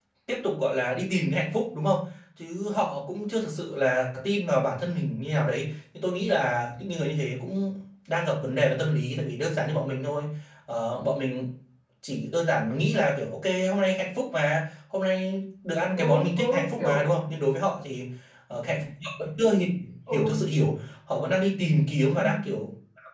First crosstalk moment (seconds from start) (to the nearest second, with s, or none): 16 s